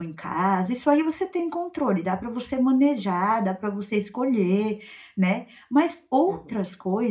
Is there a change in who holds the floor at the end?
No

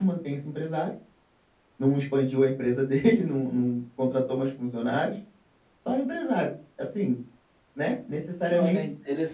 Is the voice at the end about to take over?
Yes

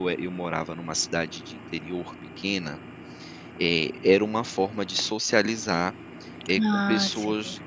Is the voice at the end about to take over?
No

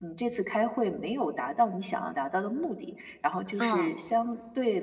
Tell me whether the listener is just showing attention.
Yes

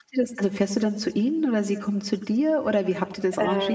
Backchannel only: No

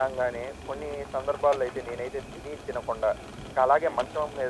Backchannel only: Yes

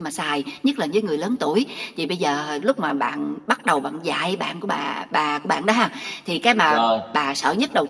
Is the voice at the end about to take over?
No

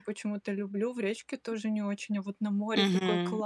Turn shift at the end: Yes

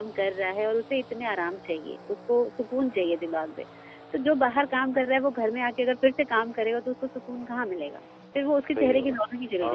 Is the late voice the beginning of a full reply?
Yes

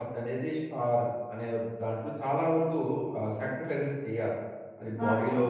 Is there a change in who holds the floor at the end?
No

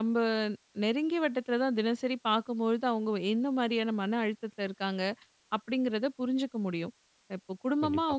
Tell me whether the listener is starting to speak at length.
No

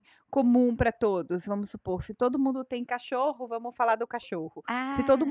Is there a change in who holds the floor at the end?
No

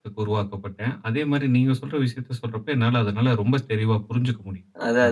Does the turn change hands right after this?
Yes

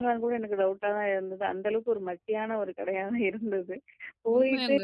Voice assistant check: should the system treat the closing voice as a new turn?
No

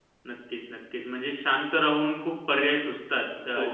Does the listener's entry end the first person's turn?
No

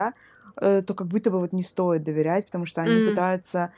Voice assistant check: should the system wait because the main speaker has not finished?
Yes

